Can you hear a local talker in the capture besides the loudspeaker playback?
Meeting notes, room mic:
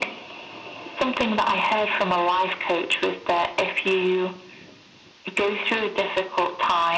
No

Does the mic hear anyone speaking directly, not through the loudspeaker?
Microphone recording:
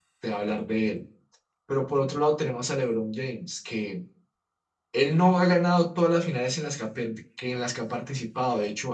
Yes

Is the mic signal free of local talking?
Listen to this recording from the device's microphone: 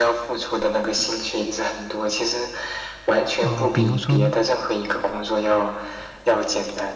No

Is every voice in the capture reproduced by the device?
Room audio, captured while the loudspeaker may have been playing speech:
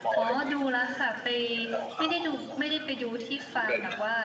No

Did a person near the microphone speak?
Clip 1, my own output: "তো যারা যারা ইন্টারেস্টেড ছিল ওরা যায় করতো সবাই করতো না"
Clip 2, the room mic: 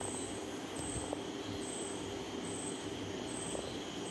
No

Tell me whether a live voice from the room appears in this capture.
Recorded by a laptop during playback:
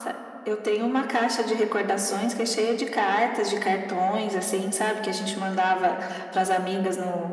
No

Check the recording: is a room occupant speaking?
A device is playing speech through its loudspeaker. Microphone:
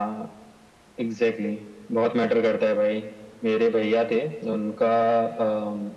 No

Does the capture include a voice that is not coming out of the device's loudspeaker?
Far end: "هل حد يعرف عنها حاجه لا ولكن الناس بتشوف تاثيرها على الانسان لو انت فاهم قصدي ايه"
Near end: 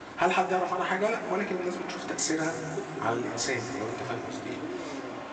Yes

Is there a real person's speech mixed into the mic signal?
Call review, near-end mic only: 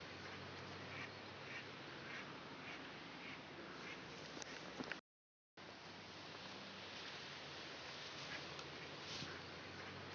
No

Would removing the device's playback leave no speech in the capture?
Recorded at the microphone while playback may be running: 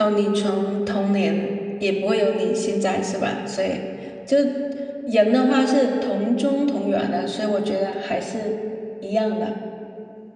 No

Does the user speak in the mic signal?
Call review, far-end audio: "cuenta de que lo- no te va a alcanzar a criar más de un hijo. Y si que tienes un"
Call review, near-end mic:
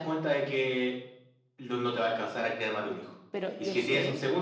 Yes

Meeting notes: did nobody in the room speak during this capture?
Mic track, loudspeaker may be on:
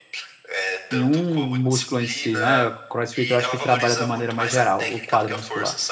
No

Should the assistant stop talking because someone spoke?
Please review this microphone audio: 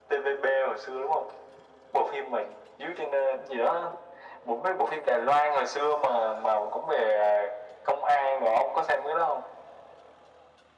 No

